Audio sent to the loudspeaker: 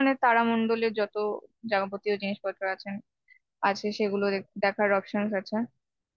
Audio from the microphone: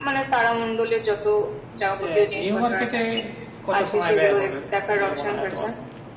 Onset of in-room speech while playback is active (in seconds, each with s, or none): 2.1 s